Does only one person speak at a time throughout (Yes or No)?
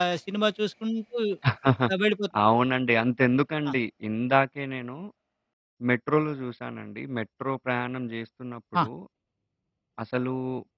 Yes